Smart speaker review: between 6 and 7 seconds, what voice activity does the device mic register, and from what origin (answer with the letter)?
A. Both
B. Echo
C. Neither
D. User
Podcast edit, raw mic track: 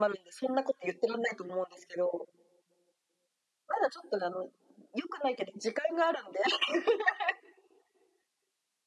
B